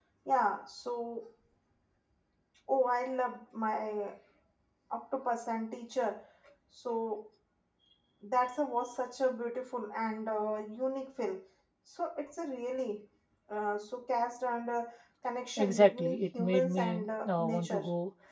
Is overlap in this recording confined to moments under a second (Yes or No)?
No